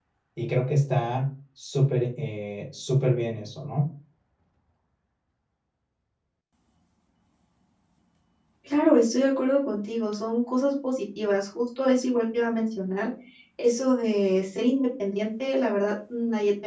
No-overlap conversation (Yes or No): Yes